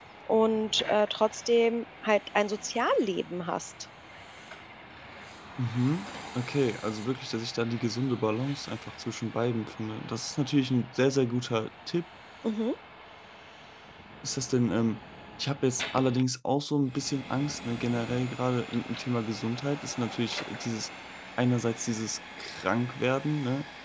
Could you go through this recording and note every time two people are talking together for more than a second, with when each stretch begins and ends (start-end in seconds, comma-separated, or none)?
none